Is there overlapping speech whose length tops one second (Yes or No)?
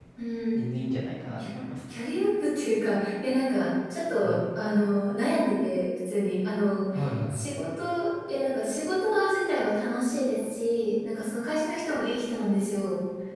No